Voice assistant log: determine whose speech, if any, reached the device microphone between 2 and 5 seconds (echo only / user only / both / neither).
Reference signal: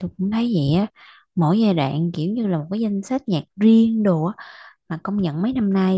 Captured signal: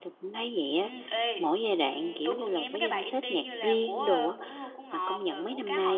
both